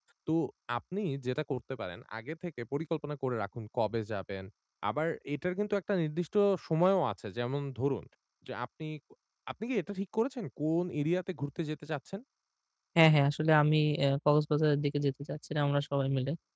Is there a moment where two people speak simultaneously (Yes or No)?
No